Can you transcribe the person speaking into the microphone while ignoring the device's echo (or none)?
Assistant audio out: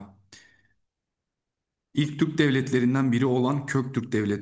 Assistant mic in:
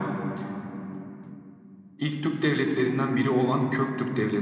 none